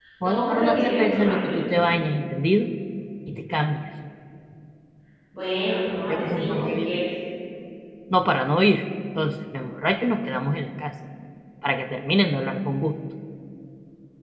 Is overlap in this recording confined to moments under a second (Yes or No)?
No